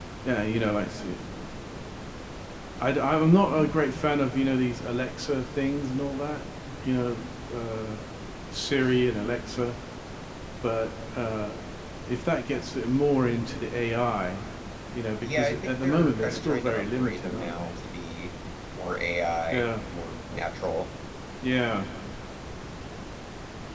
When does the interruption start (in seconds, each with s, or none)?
15.2 s